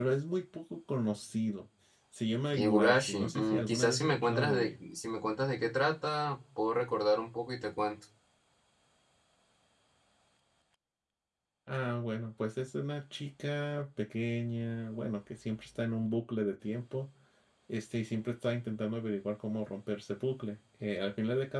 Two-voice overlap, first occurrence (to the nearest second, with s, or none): 3 s